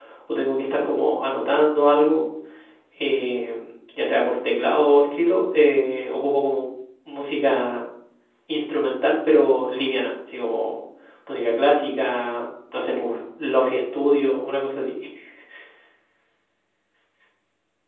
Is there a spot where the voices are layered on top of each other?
No

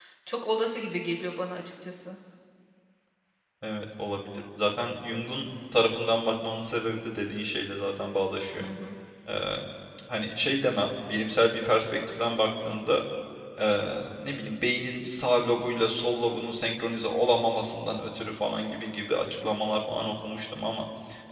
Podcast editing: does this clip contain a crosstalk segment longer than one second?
No

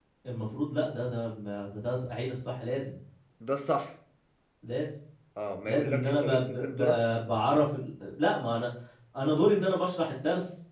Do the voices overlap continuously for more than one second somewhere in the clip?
Yes, from 5.6 s

